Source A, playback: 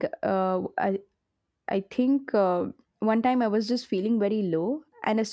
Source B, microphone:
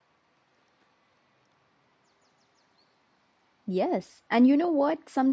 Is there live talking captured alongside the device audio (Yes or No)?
Yes